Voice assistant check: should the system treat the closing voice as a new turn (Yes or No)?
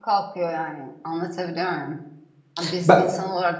No